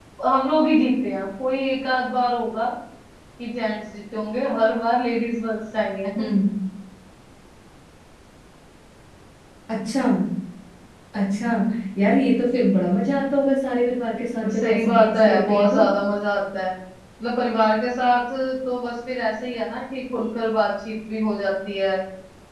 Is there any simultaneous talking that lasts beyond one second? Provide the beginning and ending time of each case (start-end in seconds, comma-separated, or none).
14.4-15.8